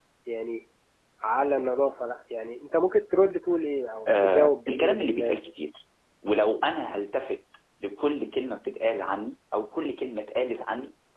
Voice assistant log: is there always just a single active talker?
No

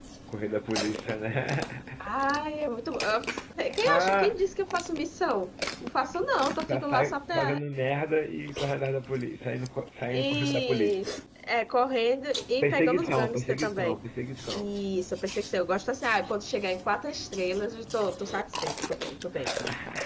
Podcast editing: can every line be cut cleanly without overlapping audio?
No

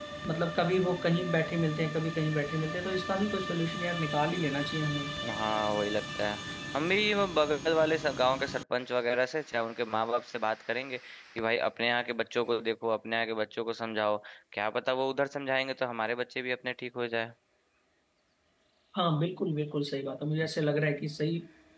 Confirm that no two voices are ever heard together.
Yes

